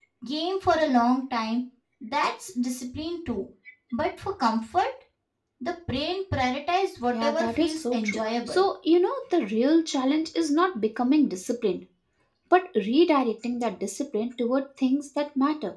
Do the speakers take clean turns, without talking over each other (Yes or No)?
No